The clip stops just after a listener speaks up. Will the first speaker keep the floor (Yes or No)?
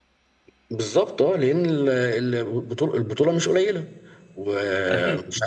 Yes